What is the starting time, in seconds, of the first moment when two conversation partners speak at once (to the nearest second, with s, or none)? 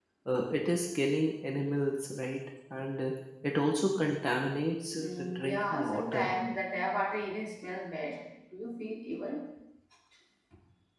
5 s